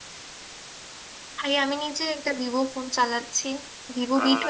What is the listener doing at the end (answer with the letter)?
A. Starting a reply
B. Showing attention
B